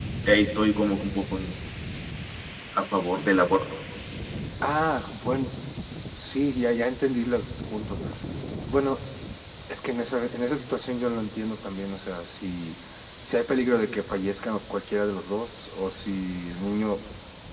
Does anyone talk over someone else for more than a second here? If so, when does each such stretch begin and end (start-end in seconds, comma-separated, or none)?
none